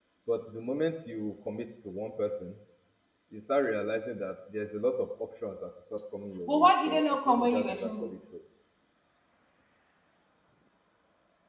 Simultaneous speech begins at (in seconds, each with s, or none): 6.5 s